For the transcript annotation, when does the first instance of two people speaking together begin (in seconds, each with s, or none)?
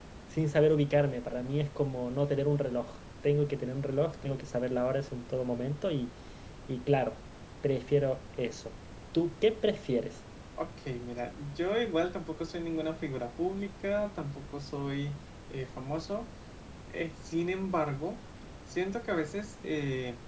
none